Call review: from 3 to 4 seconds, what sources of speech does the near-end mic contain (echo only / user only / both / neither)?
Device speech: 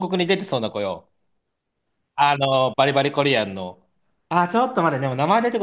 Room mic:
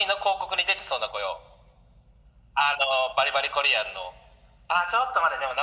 echo only